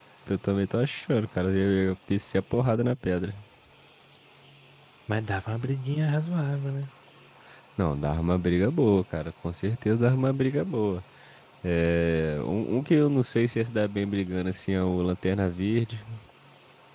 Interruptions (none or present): none